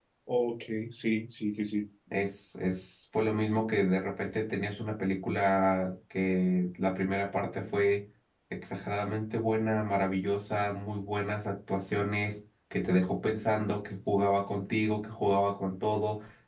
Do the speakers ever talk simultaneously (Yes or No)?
No